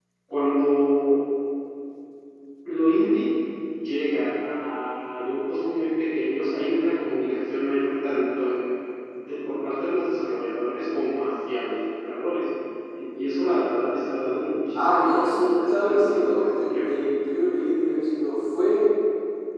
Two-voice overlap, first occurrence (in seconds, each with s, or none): 14.7 s